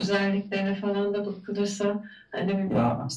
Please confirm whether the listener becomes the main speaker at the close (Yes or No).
No